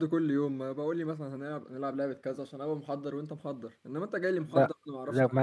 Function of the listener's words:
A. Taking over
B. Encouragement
A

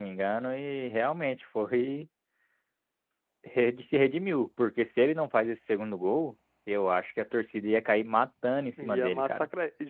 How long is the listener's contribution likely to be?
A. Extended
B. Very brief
A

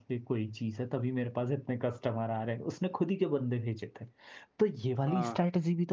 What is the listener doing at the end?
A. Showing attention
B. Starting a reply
A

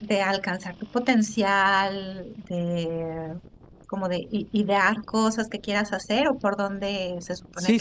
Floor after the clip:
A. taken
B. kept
A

